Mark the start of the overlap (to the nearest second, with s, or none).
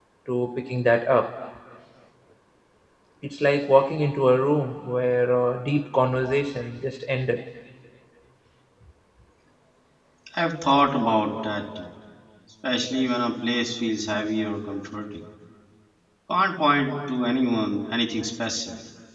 none